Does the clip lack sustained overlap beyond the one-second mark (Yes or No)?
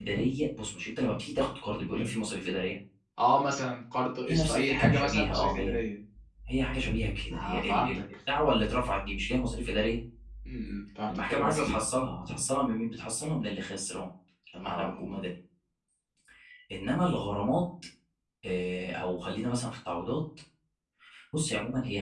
No